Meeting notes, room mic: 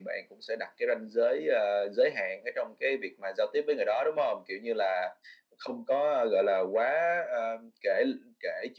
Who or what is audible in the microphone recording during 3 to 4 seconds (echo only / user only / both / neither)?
echo only